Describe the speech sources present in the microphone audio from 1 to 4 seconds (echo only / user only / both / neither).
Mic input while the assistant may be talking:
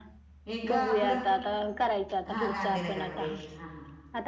both